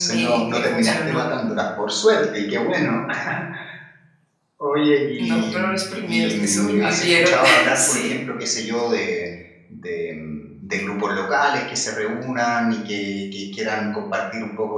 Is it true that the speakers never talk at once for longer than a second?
No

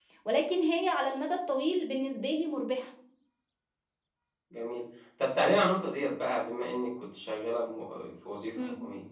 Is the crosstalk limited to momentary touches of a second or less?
Yes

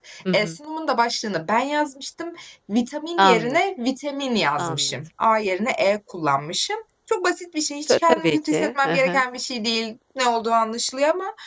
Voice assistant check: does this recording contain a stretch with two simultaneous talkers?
Yes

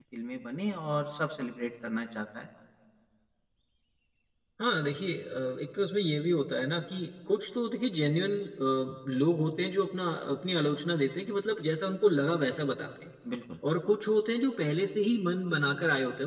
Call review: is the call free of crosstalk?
Yes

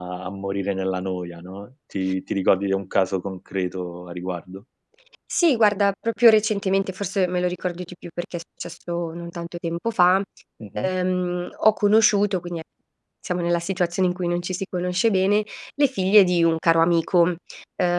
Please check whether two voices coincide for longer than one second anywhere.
No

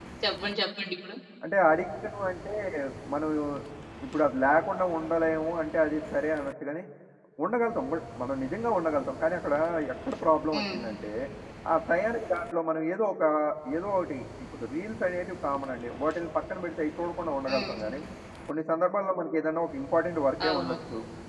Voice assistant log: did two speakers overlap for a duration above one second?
No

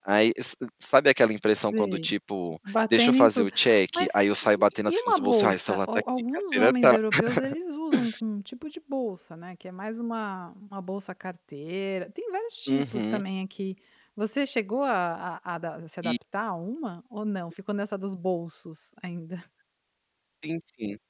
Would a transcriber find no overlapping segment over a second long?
No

